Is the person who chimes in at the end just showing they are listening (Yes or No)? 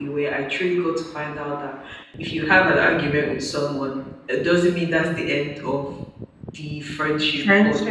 Yes